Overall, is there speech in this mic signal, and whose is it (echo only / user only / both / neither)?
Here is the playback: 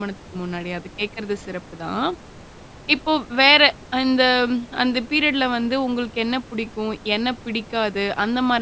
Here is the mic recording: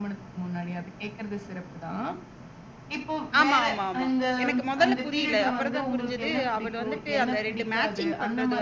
both